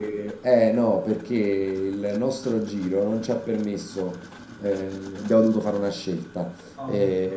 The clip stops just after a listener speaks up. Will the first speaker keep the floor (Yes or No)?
Yes